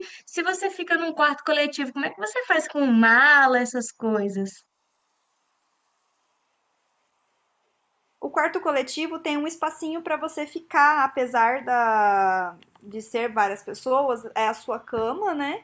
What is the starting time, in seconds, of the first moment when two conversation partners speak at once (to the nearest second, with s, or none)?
none